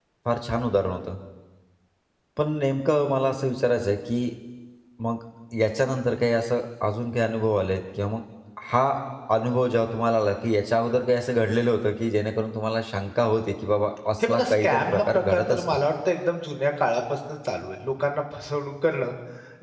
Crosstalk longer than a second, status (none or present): present